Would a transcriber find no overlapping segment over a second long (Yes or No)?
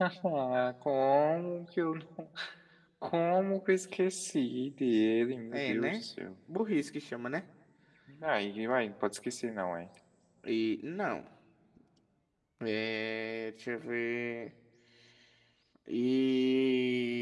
Yes